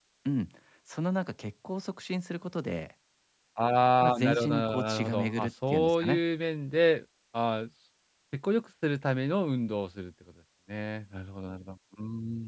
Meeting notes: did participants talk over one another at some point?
Yes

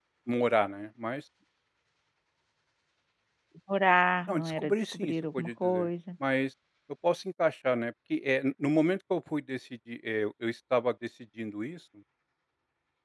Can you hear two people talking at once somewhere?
Yes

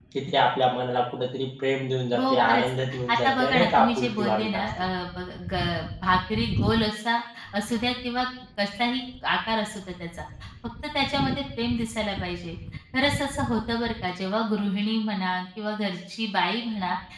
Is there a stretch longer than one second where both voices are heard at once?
Yes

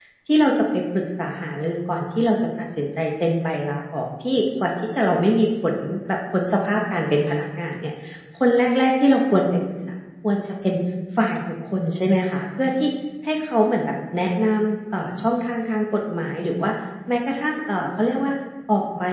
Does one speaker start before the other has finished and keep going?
No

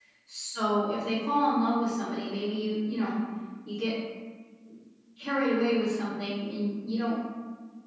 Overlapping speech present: No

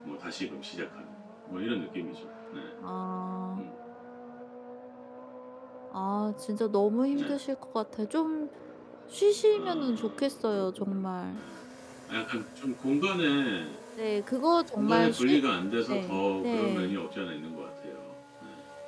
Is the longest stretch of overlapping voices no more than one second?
No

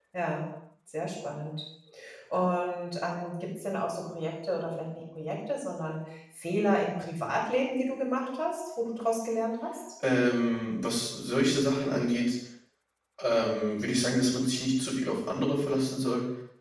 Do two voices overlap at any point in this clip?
No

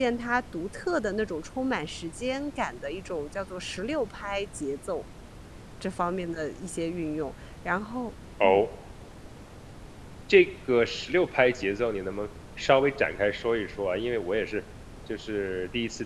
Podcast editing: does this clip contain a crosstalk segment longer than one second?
No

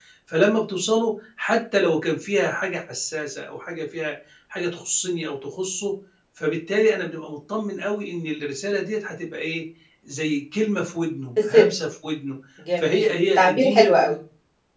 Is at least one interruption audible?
Yes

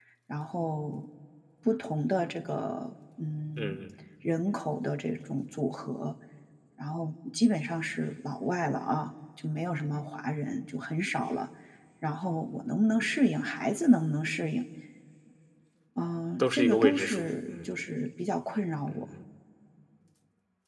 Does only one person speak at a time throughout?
No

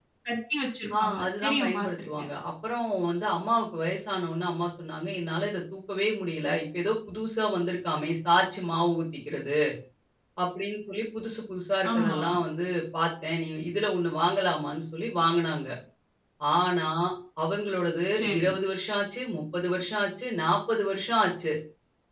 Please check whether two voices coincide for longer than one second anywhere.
Yes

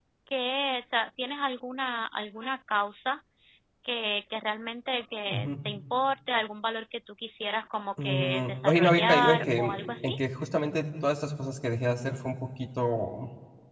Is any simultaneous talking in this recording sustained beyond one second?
Yes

